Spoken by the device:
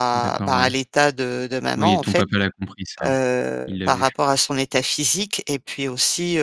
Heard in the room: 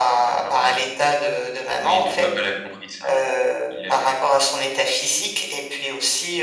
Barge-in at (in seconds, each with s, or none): none